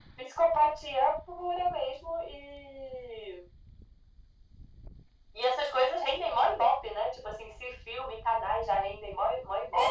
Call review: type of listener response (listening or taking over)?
taking over